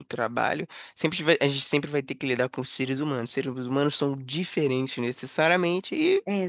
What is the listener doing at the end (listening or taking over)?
listening